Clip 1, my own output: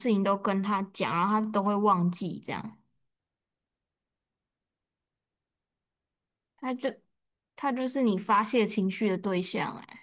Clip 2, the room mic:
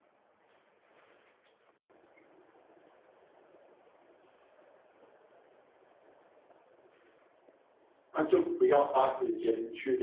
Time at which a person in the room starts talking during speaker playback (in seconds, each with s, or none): 8.1 s